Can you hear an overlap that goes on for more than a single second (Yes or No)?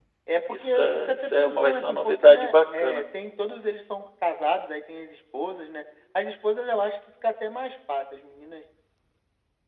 Yes